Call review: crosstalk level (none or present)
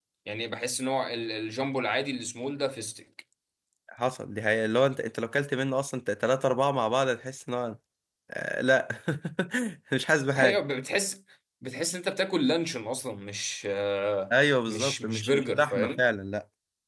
present